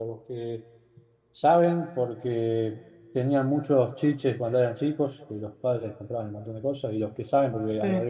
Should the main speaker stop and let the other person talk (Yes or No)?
No